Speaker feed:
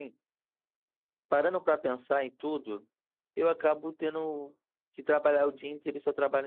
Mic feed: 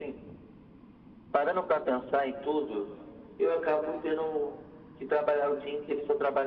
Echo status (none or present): present